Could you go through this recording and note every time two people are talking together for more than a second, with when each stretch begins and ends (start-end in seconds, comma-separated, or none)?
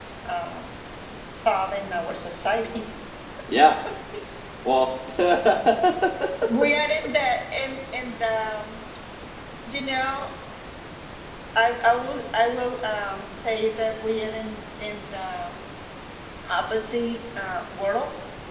none